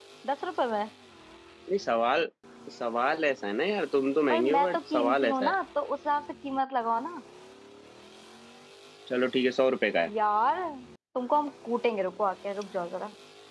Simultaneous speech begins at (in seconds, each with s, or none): 4.3 s